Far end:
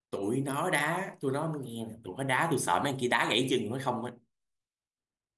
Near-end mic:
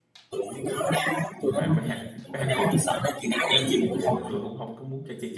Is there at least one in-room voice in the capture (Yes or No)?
Yes